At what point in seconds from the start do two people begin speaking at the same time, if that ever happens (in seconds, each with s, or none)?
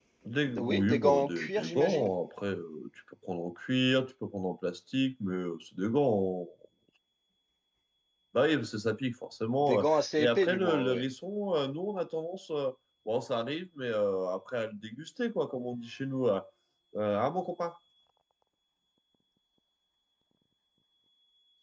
0.6 s